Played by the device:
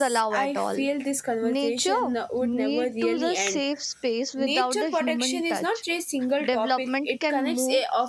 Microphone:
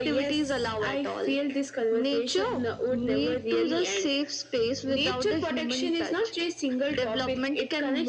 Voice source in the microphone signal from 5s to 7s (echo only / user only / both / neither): echo only